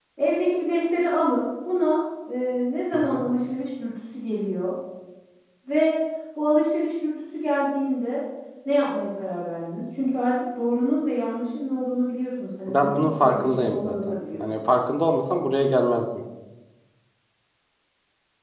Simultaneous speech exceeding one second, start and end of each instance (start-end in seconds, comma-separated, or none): 12.7-14.6